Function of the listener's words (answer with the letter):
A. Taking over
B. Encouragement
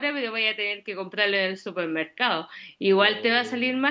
B